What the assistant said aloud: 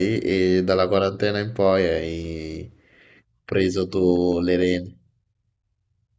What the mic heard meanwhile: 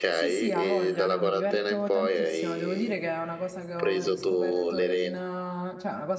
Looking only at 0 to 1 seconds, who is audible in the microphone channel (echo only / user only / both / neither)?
both